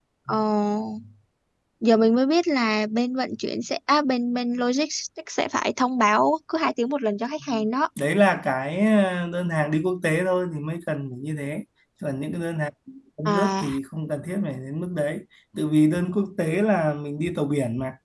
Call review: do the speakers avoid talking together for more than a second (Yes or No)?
Yes